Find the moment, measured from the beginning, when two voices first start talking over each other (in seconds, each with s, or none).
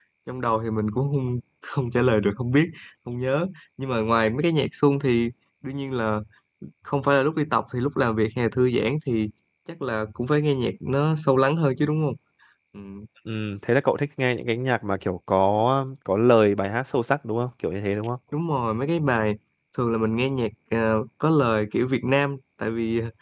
none